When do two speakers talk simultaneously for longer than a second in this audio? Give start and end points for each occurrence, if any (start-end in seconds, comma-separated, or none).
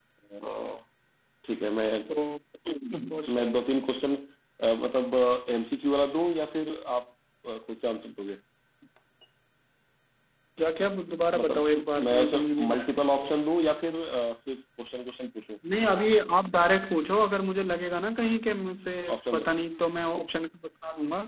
11.4-13.3